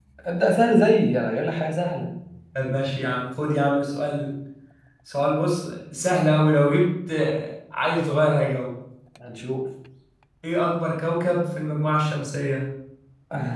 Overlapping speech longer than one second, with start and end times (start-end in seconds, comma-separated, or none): none